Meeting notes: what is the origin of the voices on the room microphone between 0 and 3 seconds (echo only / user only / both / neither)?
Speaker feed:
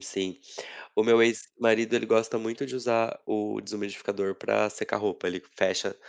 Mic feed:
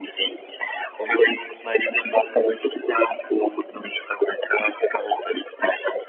echo only